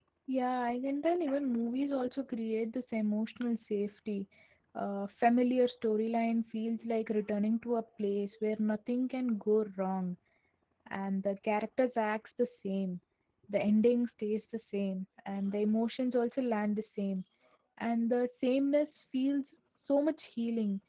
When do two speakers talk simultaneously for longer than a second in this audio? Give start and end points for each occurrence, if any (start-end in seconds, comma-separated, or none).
none